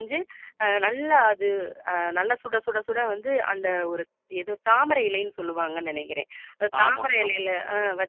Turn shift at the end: No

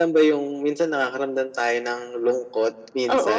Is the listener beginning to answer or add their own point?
Yes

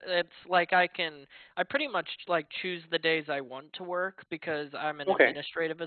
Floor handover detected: No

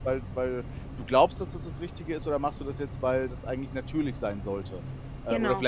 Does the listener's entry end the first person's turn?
No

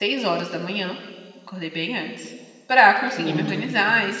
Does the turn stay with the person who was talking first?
Yes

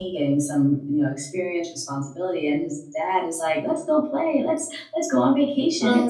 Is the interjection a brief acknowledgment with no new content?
Yes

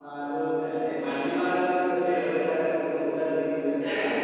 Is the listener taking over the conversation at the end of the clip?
Yes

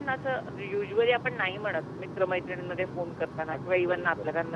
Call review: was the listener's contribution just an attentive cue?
Yes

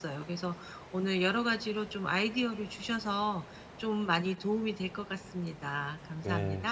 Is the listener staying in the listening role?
No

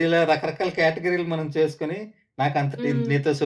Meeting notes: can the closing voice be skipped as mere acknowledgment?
Yes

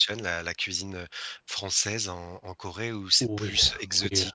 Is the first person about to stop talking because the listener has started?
Yes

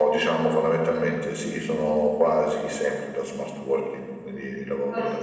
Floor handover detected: Yes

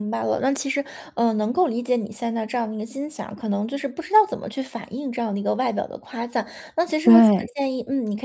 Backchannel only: Yes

